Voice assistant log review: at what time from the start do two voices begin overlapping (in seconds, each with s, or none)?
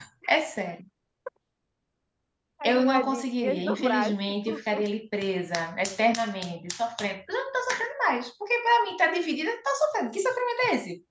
2.6 s